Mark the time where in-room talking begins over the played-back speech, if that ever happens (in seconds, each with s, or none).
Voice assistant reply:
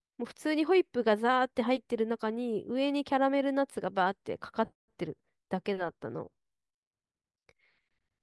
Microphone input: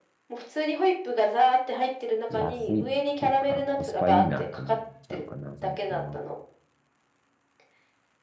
2.3 s